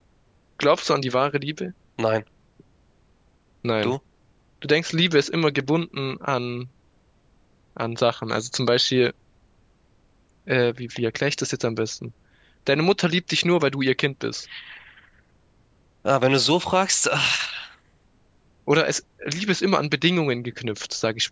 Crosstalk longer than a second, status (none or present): none